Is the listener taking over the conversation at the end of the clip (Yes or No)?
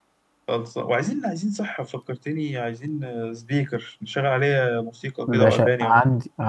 Yes